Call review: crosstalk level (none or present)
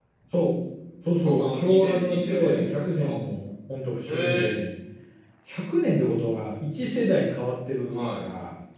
present